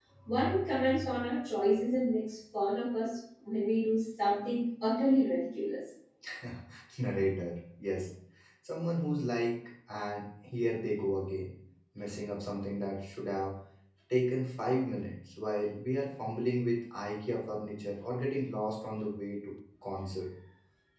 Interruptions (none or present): none